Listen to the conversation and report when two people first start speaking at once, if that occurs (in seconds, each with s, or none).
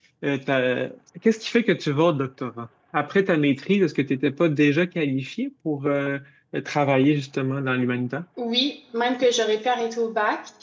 none